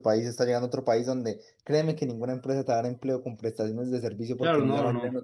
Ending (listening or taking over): taking over